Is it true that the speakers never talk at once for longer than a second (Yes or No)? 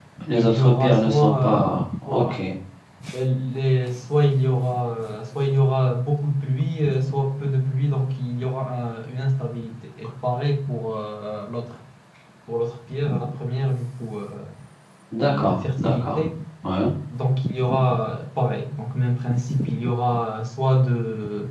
No